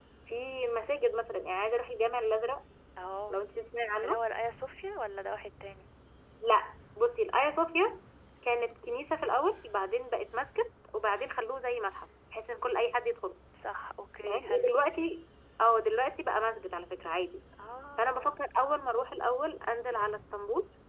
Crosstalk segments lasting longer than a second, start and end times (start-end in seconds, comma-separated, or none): none